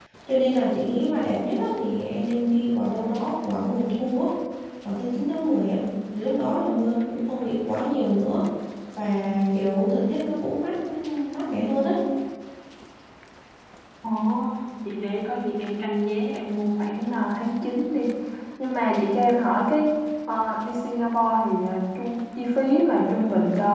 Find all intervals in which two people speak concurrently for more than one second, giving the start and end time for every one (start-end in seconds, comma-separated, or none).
none